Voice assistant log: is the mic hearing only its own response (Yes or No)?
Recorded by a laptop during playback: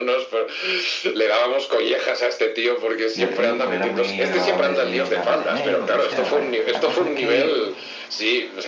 No